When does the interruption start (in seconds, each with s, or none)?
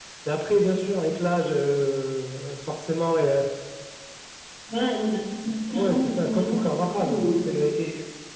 5.7 s